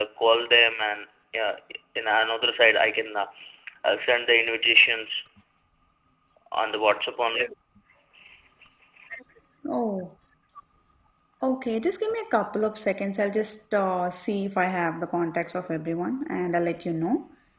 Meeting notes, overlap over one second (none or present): none